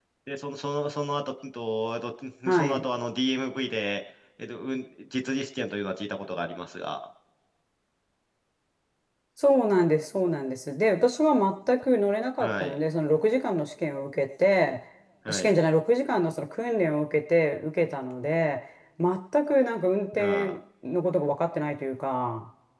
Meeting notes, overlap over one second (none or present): none